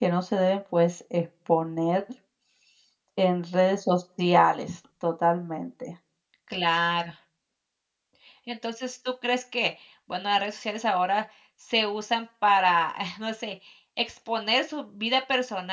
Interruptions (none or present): none